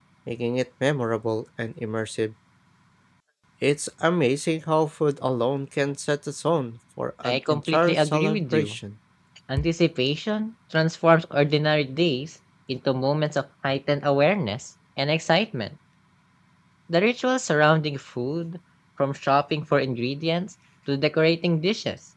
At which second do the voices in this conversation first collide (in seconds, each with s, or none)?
7.2 s